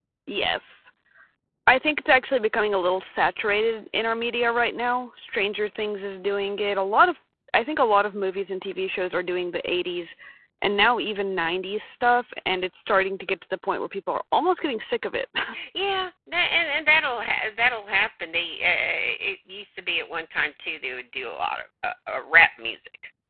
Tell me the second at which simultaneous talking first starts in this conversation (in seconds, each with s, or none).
none